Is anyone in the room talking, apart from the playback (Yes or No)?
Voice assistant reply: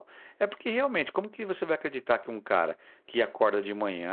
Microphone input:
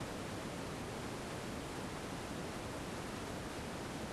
No